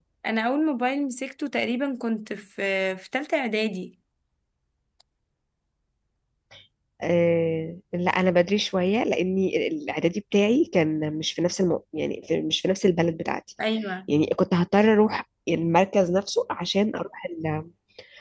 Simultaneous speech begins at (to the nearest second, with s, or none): none